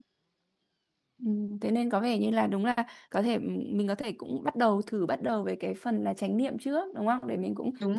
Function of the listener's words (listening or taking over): listening